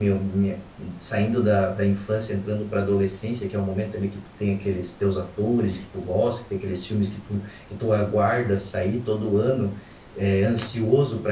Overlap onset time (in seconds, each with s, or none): none